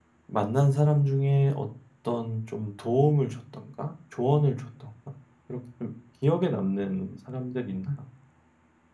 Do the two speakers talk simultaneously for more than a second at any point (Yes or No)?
No